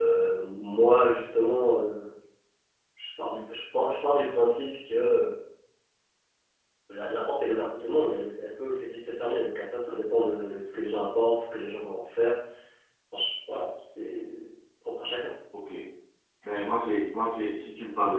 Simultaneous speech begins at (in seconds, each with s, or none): none